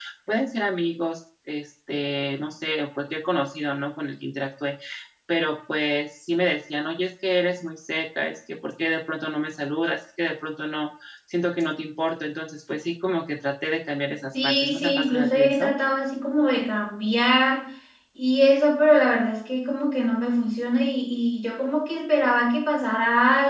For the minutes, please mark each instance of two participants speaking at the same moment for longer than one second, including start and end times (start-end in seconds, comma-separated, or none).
14.3-15.7